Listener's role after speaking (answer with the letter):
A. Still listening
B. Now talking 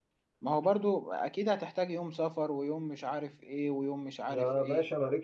B